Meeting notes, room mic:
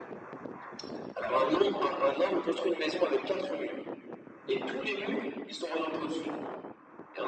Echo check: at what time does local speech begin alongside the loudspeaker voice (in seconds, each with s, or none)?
none